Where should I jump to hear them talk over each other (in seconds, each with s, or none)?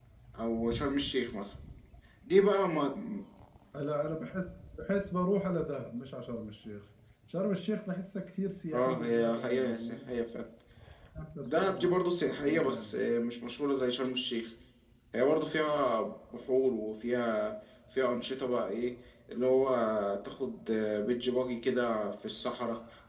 8.7 s